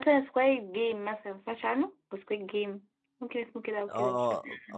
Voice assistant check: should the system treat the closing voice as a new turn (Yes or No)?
Yes